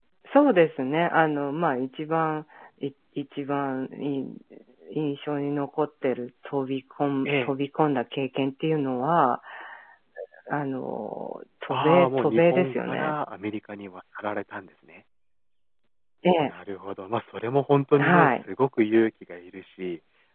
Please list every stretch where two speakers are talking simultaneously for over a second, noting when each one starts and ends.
11.7-13.2

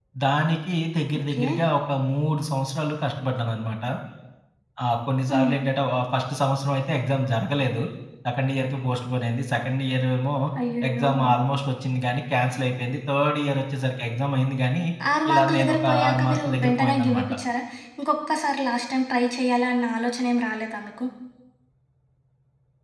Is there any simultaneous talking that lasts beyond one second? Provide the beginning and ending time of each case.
15.3-17.3

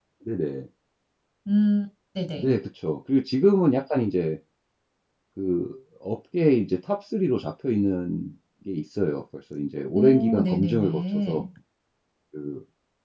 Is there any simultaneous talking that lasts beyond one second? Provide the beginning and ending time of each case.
9.9-11.4

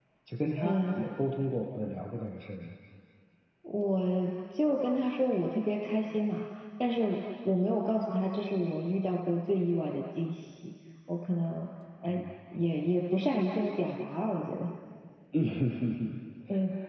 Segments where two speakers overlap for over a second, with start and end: none

